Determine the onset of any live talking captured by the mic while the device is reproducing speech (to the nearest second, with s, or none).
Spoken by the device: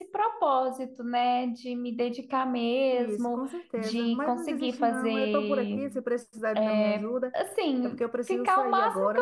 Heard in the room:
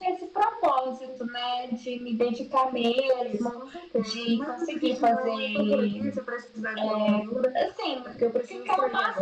none